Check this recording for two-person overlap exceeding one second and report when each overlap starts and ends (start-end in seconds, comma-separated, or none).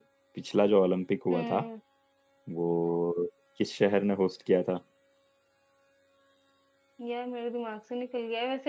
none